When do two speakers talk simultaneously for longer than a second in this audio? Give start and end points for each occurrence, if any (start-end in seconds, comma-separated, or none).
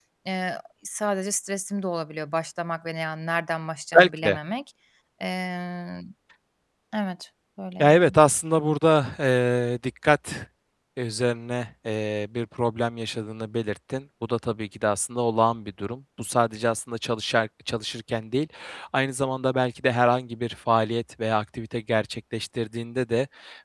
none